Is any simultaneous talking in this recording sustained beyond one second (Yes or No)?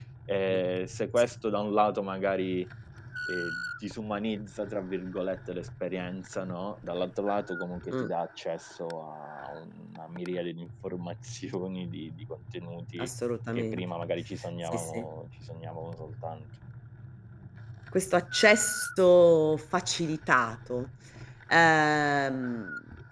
No